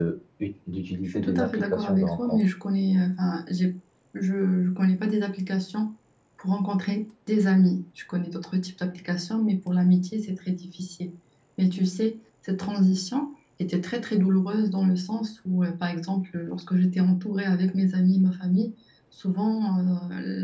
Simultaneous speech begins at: 1 s

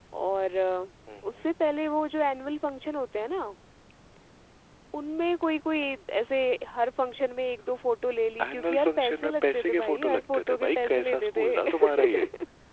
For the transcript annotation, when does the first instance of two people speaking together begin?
8 s

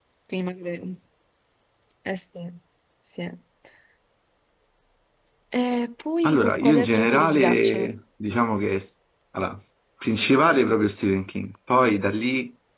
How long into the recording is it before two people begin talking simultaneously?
6 s

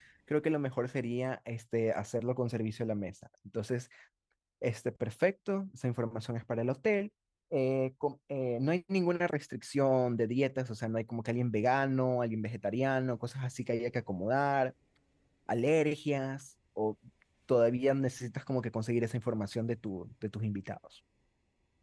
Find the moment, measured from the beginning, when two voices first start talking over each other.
none

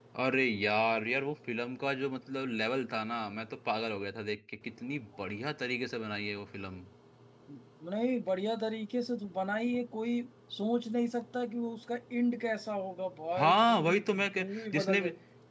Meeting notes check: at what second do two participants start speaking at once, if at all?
13 s

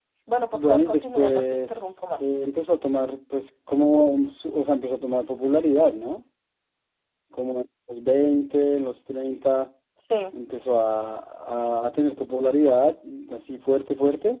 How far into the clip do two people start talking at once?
1 s

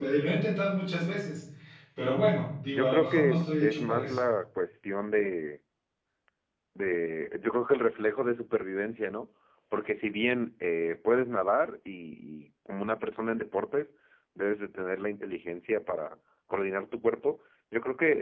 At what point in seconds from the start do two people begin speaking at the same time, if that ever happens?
3 s

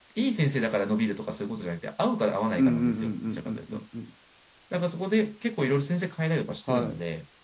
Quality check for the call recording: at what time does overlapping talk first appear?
3 s

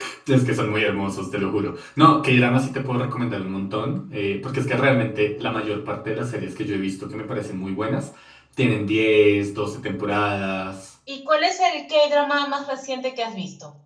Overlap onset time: none

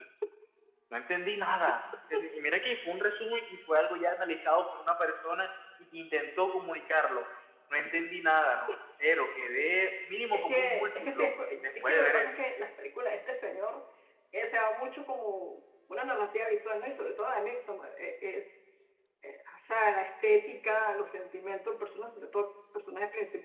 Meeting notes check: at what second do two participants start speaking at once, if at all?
10 s

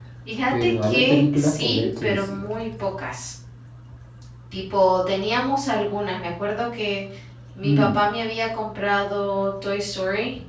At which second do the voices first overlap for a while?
1 s

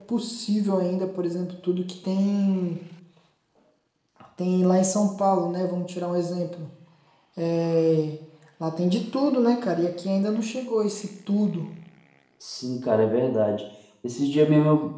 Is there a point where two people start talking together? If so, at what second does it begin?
none

